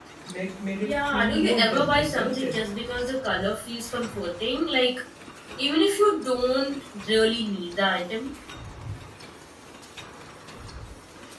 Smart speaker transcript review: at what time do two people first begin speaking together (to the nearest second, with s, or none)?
1 s